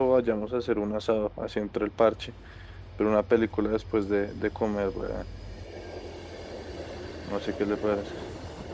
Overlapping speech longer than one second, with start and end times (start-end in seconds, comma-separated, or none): none